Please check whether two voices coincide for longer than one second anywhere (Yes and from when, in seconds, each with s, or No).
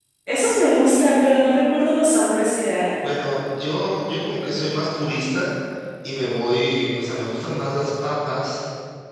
No